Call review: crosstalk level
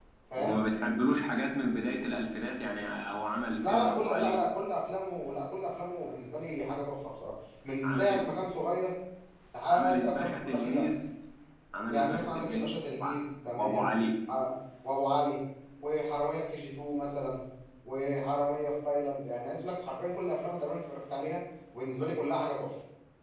present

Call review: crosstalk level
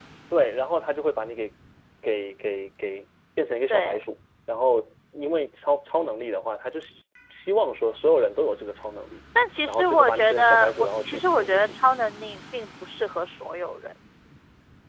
present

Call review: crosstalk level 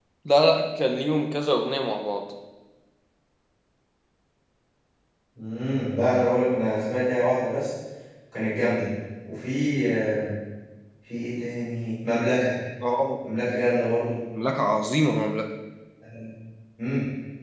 none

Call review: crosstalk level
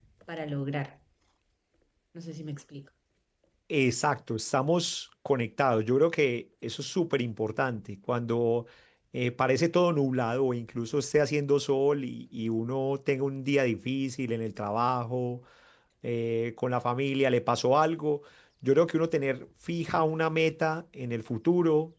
none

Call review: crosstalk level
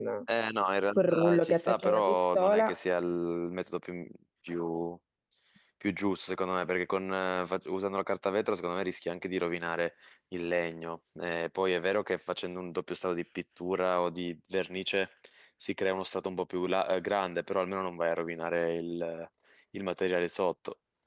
present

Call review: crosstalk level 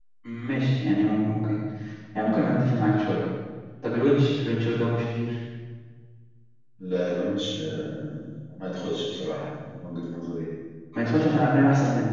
none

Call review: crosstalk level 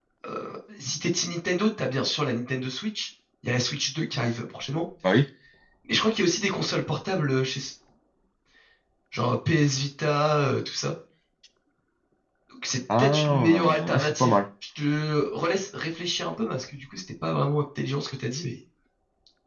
present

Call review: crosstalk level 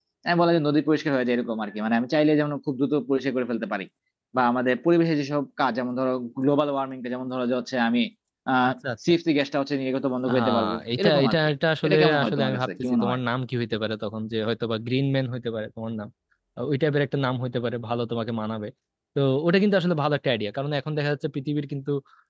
present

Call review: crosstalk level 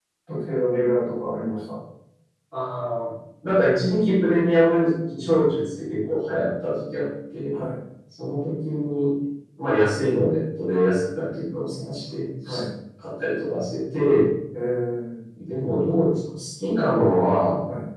none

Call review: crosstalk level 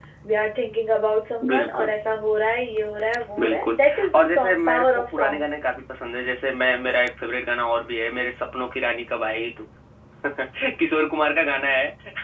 present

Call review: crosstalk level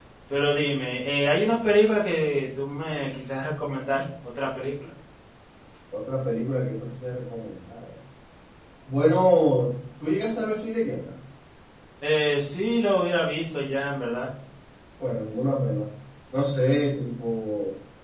none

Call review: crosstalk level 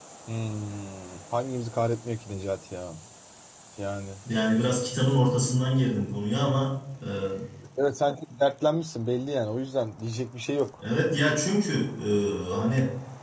none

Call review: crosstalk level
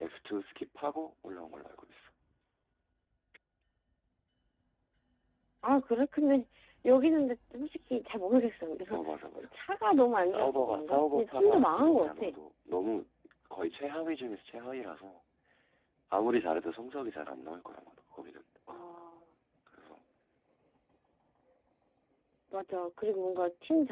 present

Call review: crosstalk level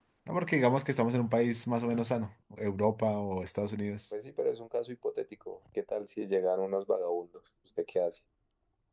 none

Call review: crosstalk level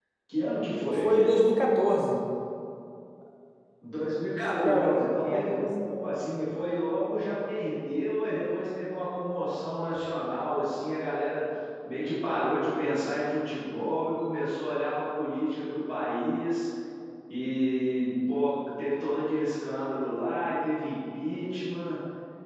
present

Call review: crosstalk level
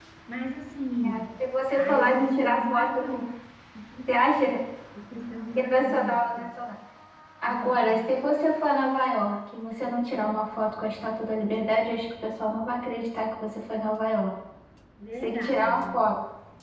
present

